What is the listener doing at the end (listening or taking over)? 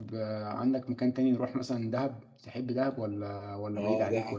taking over